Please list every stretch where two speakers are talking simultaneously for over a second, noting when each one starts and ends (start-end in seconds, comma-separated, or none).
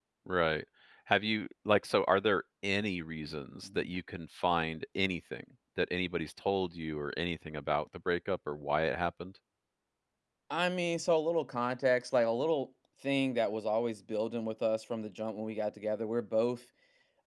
none